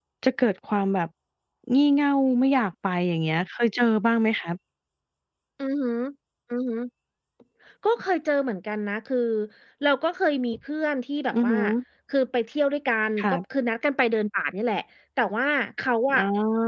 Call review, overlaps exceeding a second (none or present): none